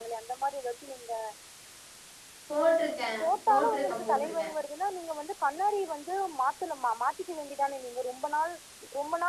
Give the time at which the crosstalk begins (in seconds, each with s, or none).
3.2 s